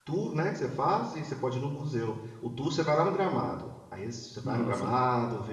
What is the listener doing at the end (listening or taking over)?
listening